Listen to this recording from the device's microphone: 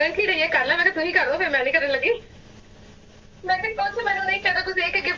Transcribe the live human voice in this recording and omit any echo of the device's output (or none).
none